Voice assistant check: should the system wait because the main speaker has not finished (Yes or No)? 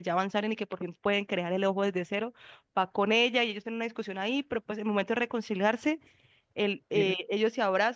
Yes